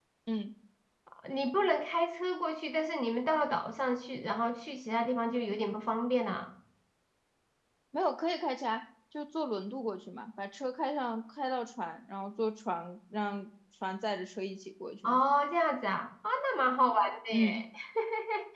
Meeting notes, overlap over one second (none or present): none